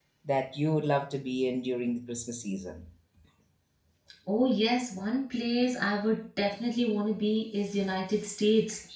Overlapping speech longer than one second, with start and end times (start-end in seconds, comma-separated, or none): none